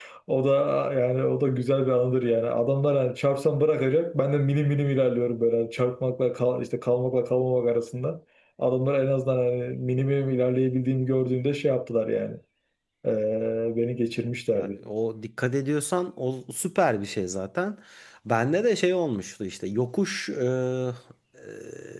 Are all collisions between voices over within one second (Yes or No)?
Yes